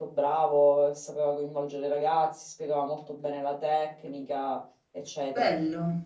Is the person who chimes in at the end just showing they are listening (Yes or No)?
No